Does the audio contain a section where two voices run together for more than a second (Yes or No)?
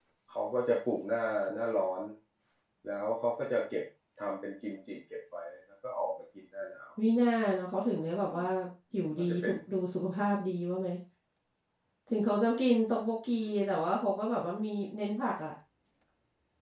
No